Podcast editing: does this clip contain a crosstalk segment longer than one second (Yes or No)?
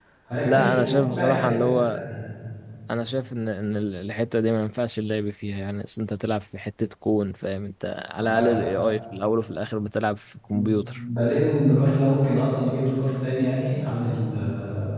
Yes